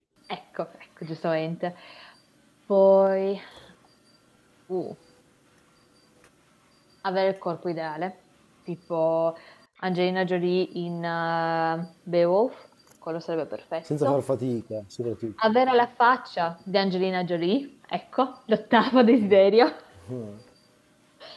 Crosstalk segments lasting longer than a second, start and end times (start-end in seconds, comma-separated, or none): none